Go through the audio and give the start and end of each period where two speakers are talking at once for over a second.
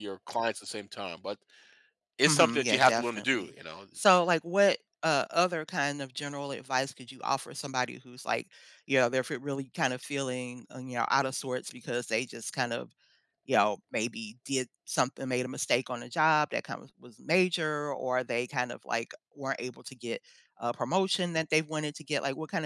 2.3-3.5

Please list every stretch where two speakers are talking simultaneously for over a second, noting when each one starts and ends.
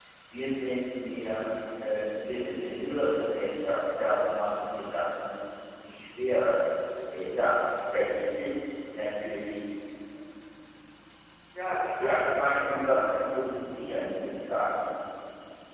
11.8-13.2

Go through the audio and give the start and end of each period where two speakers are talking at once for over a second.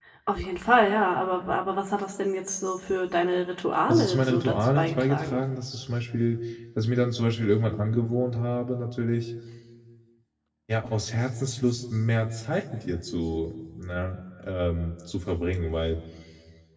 3.9-5.4

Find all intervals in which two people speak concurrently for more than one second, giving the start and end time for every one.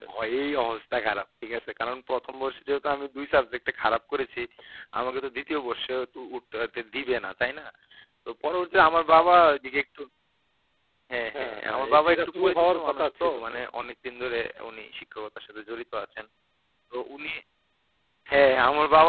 11.3-13.3

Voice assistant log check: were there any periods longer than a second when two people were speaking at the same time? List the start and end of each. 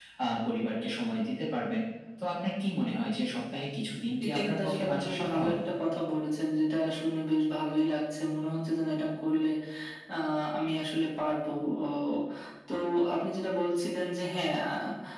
4.2-5.5

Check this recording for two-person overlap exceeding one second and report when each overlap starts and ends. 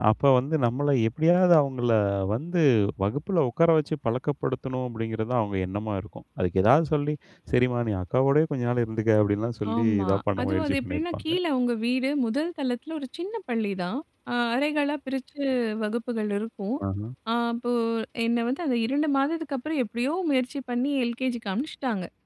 9.8-11.3

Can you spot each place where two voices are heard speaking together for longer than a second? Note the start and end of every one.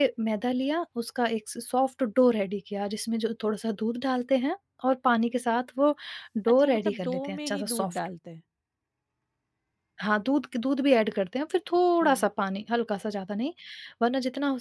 6.6-8.0

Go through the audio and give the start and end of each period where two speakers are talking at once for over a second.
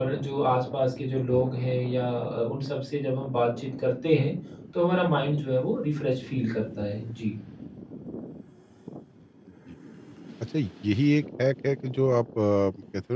none

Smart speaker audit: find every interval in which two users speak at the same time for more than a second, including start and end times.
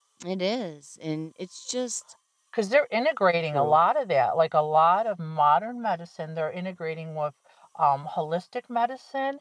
none

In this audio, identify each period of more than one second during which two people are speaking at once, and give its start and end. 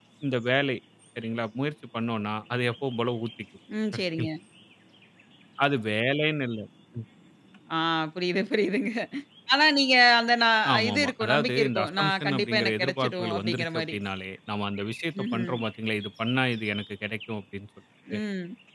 10.7-13.9

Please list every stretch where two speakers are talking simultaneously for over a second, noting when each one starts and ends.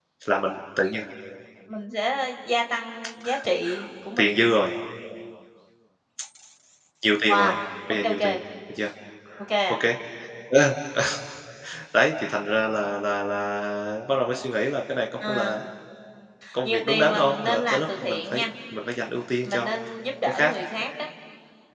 16.6-18.4

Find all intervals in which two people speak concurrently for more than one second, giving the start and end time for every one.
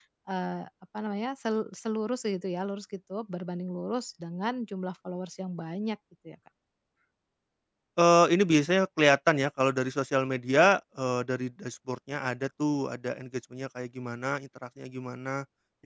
none

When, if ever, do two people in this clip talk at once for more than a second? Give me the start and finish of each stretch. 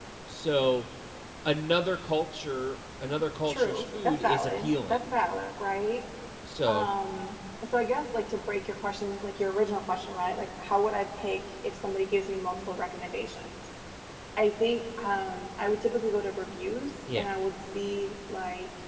3.5-5.0

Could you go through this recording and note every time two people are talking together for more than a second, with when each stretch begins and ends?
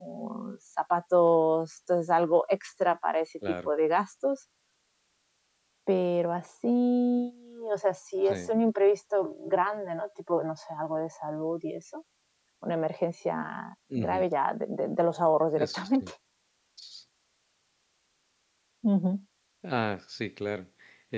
none

